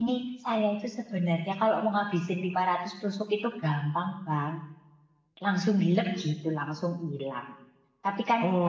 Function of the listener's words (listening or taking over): listening